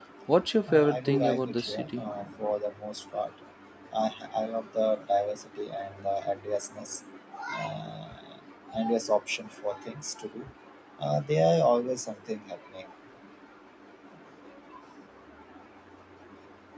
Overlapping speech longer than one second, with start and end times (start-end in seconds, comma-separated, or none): 0.7-2.0